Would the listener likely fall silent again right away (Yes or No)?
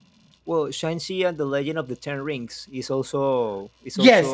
No